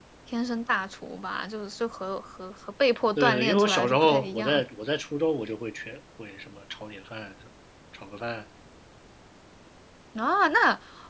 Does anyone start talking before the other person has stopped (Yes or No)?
Yes